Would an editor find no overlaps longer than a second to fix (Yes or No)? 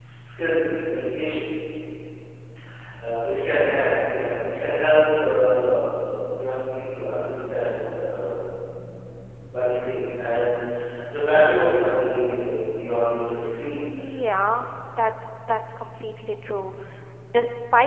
Yes